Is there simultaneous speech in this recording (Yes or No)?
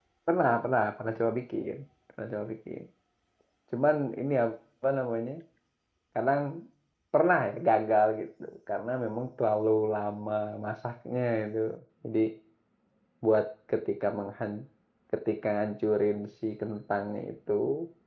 No